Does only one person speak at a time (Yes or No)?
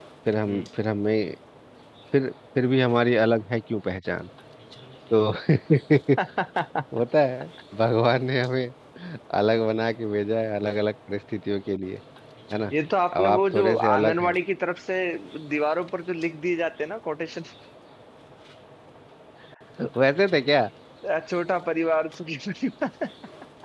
No